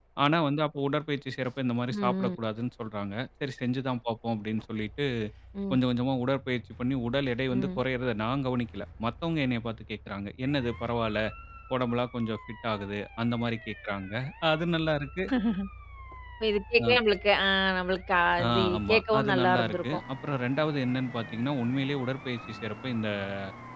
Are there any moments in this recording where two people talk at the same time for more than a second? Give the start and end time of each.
18.4-20.0

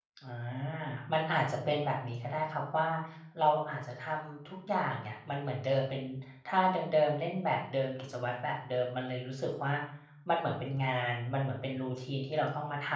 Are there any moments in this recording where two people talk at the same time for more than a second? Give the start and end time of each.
none

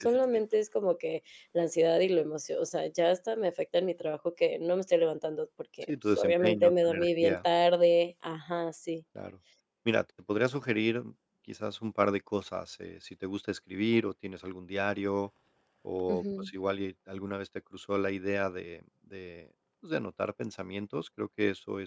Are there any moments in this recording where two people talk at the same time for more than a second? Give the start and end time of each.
5.8-7.4

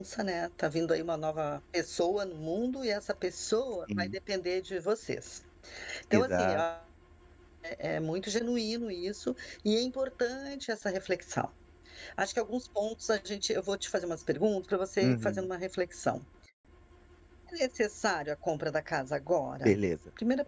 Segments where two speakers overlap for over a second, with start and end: none

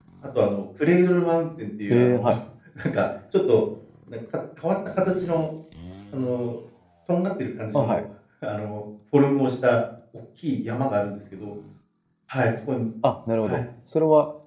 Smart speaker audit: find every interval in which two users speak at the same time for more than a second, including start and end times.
none

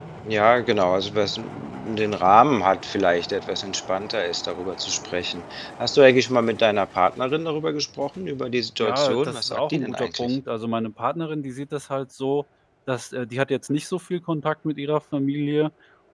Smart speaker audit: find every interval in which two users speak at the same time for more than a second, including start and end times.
8.8-10.4

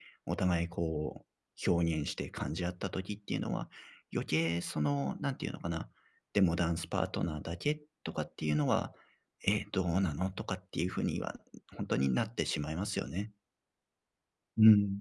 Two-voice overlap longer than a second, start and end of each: none

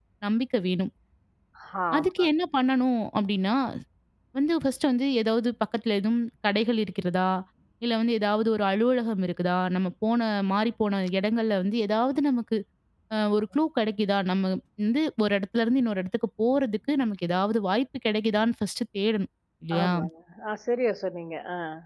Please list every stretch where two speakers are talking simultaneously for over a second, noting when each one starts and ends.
none

